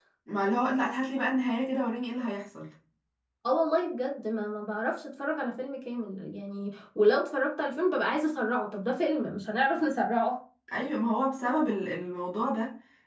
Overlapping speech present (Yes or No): No